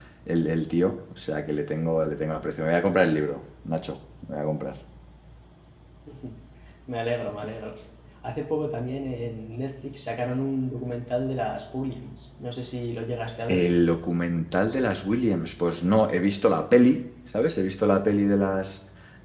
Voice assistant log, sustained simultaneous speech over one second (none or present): none